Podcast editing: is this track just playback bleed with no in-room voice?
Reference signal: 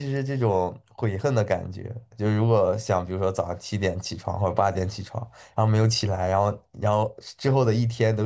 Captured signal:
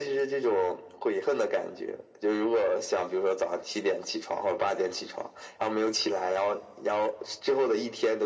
Yes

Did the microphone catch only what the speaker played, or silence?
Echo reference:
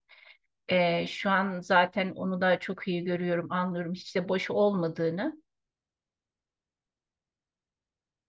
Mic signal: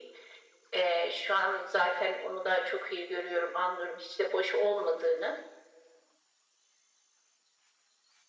Yes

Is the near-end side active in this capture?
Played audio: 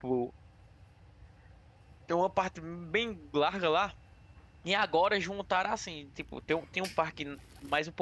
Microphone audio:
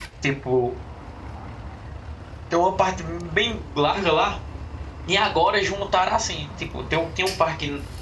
No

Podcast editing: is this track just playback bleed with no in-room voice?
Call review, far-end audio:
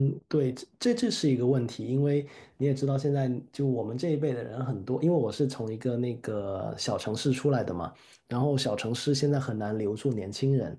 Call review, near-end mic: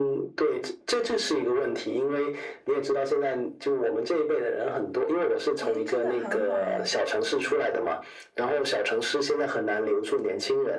No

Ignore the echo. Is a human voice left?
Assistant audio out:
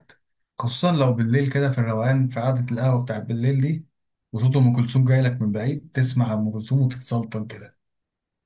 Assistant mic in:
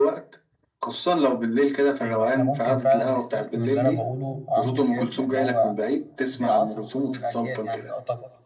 Yes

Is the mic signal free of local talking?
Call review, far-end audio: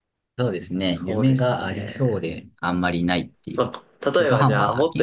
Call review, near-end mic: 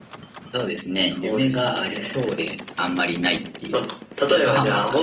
Yes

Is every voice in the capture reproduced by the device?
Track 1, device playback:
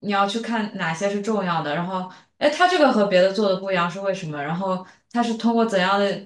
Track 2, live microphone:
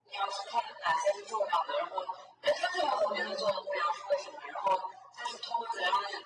No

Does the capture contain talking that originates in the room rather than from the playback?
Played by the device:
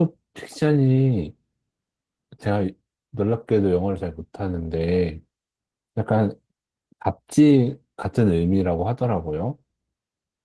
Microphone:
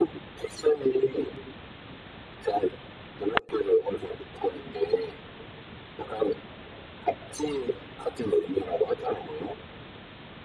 No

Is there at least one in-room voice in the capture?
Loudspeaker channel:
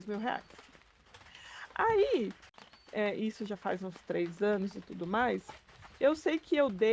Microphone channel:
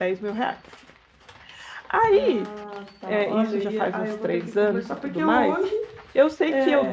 Yes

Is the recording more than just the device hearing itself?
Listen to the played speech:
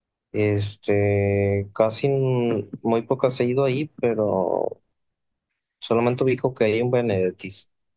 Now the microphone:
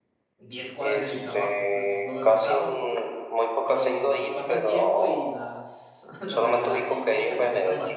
Yes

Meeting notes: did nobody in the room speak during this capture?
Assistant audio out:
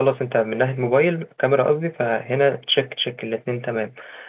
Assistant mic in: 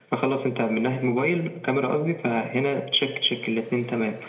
Yes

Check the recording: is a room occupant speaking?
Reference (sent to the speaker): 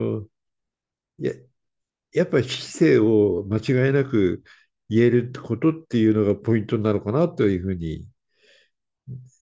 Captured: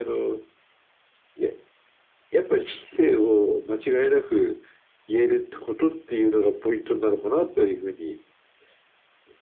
No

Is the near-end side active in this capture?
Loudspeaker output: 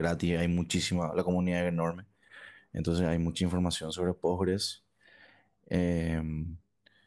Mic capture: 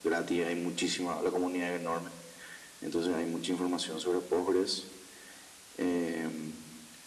No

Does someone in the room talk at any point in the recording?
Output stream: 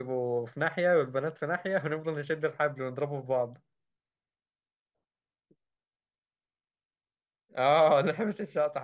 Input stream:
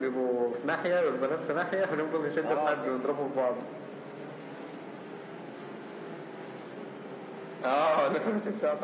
Yes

